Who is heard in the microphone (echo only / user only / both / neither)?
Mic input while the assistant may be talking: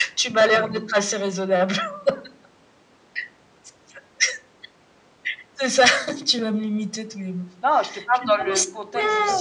both